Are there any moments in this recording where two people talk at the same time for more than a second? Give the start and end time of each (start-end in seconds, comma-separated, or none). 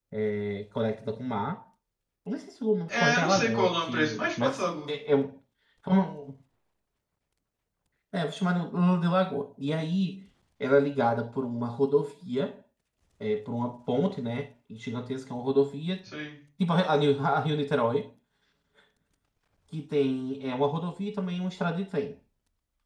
2.9-4.9